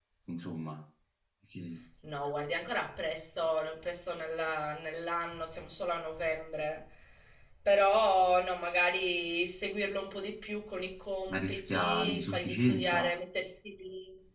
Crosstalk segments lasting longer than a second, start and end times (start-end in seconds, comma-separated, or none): 11.3-13.1